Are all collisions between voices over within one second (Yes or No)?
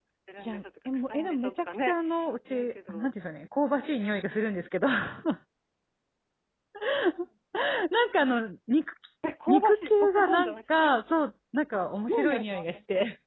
No